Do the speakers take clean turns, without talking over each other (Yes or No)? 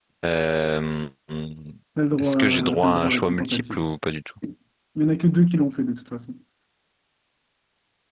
No